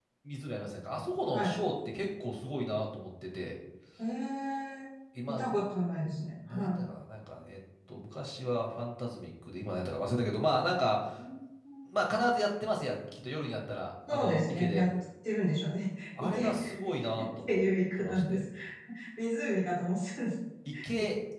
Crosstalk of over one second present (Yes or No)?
Yes